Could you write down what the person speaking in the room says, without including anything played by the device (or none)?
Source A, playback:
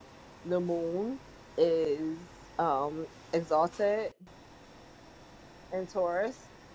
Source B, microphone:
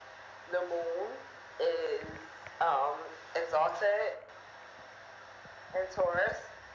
none